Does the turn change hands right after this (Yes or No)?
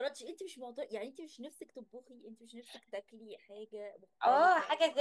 Yes